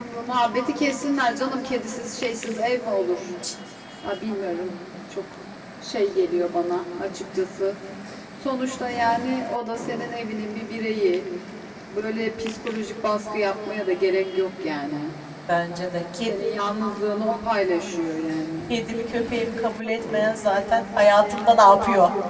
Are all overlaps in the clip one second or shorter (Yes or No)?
Yes